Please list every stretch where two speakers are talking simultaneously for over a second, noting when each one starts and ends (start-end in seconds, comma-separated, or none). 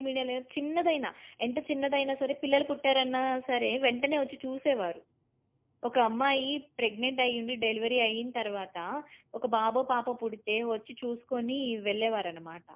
none